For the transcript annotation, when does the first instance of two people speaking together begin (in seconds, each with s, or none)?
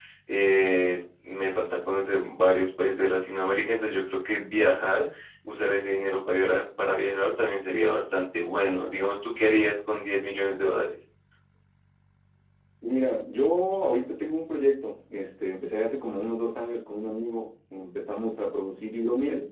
none